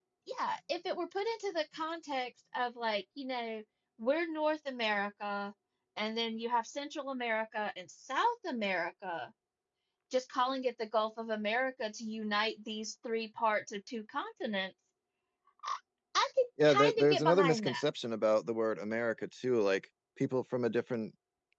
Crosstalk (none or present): present